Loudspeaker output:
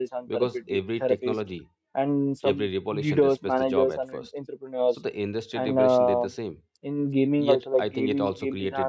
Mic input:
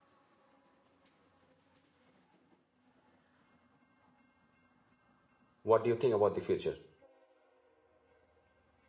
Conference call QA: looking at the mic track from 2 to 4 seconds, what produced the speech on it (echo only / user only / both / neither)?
neither